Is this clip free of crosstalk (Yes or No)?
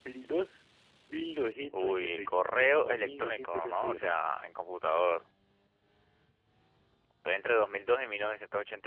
No